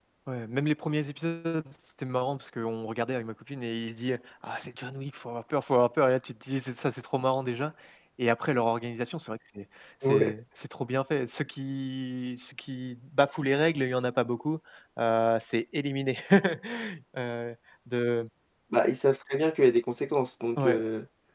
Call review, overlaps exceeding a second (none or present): none